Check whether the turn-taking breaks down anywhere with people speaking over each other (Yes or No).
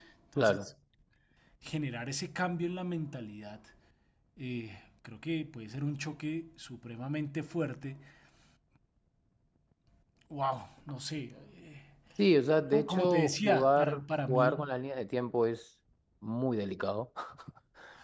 Yes